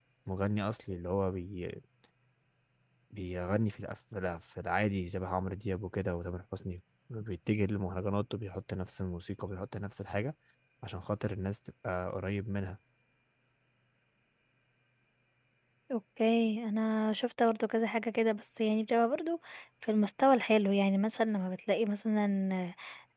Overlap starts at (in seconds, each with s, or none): none